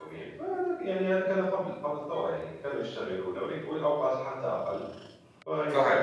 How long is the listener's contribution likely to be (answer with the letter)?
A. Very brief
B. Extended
A